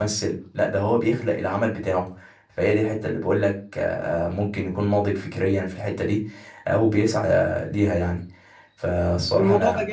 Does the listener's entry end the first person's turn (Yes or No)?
Yes